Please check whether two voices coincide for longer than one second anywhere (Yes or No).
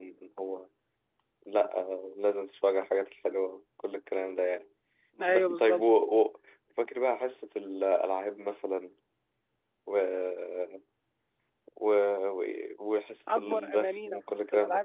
Yes